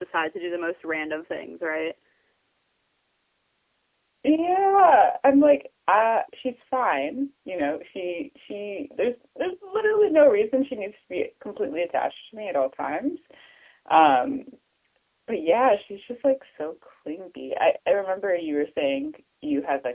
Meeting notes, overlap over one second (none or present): none